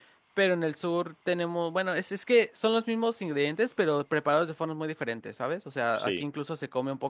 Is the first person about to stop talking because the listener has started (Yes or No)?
No